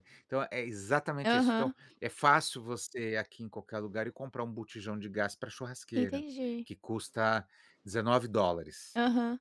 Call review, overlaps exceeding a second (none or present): none